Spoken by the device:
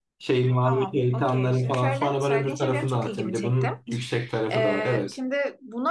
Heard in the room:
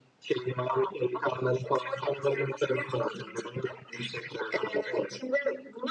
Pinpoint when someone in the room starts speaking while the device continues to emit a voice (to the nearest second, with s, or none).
none